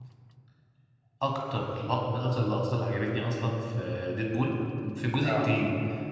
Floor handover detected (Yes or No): No